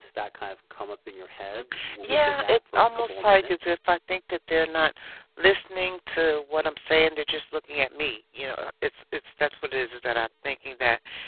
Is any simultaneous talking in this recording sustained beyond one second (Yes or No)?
Yes